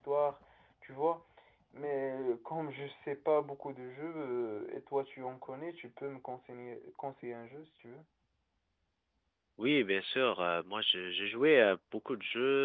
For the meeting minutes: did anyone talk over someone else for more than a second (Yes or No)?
No